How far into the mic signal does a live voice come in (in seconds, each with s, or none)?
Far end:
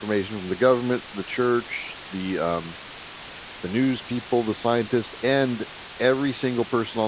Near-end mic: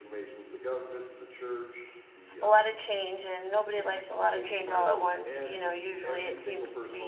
2.4 s